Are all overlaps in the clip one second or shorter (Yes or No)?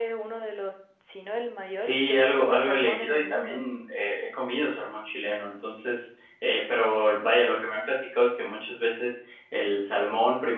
No